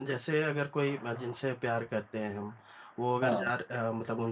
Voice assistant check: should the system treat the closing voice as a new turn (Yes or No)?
No